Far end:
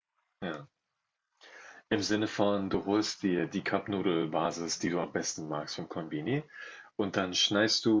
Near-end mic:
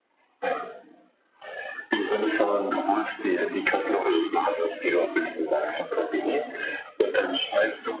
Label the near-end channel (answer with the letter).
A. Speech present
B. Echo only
B